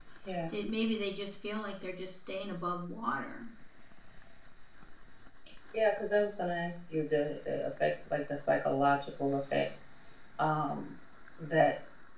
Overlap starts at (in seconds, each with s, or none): none